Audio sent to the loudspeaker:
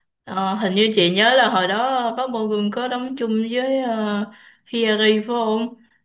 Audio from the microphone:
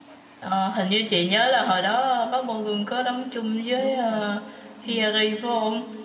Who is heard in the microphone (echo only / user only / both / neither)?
both